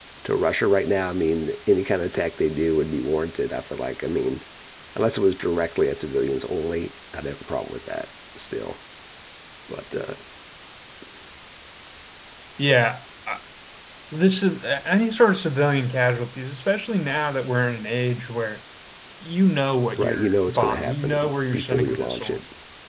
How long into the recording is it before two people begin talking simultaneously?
20.0 s

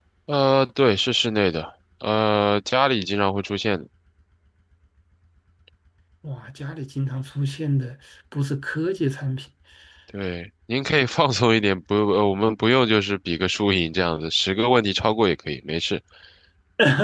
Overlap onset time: none

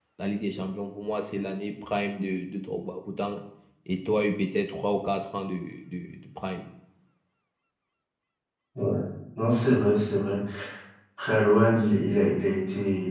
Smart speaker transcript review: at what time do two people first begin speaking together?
none

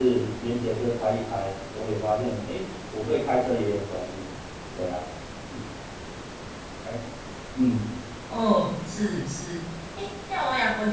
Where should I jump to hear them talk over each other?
none

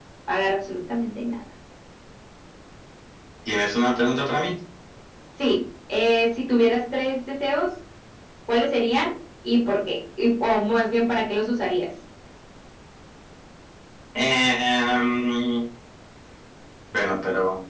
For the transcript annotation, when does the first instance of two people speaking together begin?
none

